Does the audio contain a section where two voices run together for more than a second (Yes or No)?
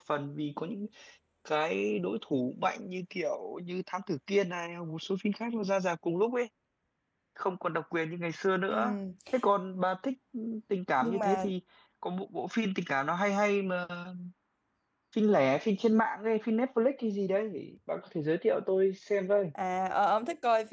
No